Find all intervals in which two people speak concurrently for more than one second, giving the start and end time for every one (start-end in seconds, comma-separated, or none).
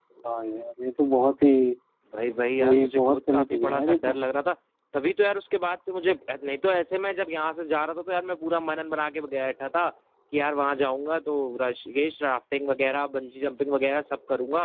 2.6-4.2